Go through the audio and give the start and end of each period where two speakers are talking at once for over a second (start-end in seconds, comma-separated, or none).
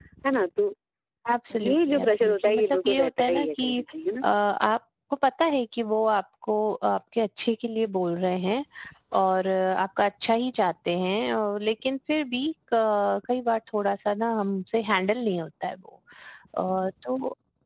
1.6-3.7